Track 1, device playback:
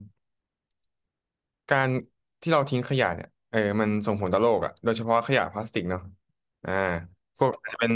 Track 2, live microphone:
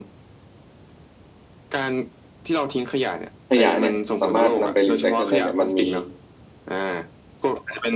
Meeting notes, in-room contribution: present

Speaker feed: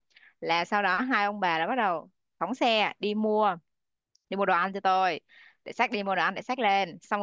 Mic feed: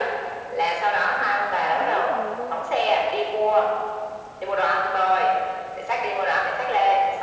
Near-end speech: present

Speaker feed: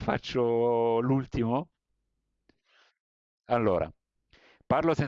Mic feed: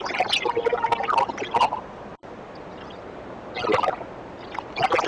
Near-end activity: none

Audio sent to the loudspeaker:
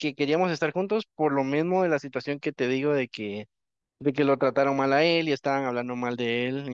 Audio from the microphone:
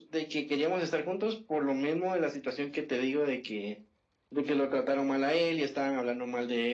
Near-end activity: none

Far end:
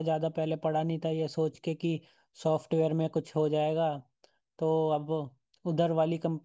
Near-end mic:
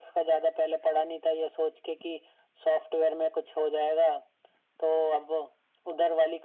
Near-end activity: none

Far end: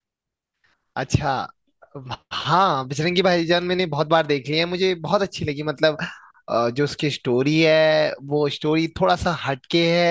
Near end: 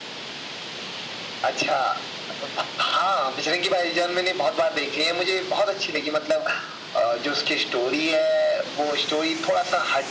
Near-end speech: none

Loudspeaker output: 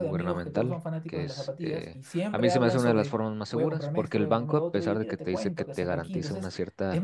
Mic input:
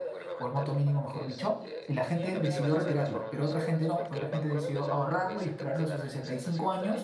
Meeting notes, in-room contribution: present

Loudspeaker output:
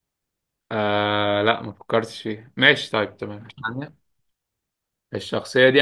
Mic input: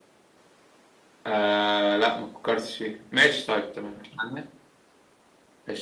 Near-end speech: none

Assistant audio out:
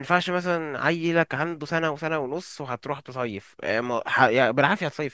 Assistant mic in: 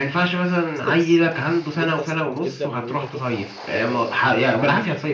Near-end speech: present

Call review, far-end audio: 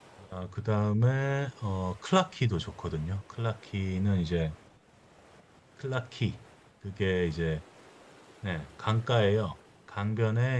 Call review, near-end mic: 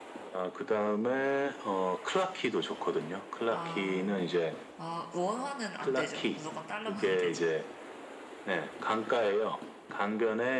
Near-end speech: present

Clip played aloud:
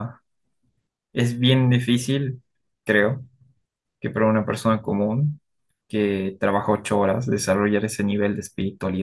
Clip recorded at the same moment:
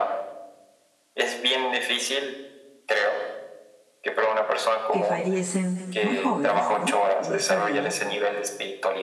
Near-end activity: present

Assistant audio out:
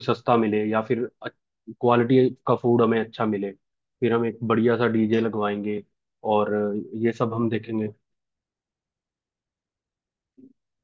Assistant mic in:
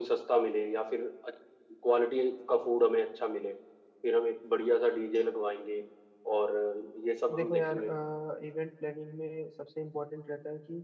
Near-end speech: present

